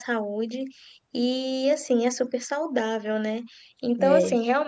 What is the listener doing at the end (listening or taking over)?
listening